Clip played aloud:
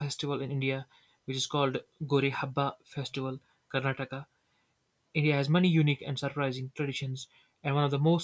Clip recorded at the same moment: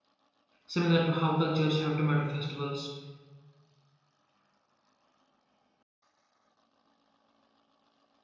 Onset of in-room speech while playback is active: 0.7 s

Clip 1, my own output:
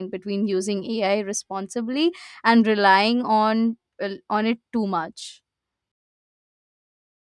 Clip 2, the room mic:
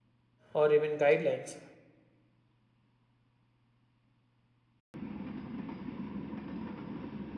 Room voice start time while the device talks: 0.5 s

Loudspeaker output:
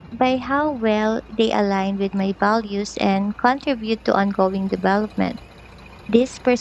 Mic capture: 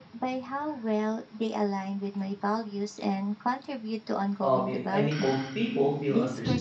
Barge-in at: 4.4 s

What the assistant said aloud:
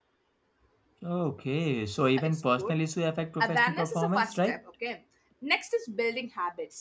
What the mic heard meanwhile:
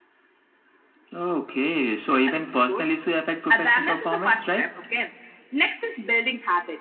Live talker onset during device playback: none

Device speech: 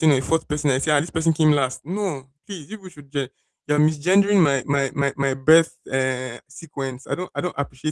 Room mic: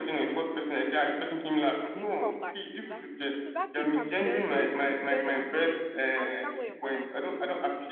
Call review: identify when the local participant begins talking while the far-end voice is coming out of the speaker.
1.8 s

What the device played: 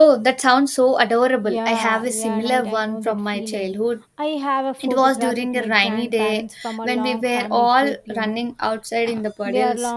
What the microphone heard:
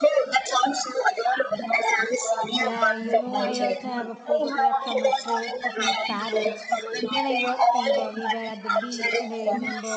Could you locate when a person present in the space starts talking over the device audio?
2.5 s

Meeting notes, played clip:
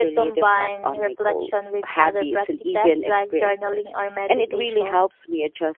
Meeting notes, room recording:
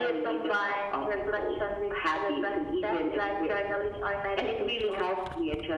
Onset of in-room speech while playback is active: none

